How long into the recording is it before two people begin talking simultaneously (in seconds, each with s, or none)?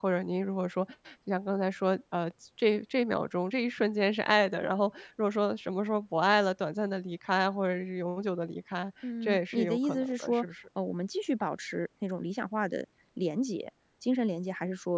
9.0 s